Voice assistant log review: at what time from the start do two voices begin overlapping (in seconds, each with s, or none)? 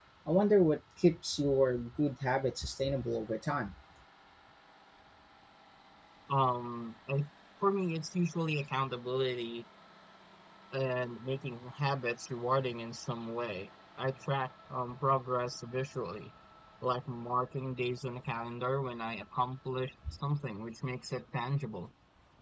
none